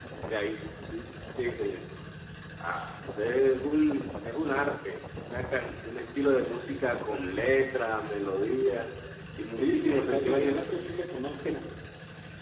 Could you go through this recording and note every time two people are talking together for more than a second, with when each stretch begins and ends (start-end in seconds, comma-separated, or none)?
9.6-10.8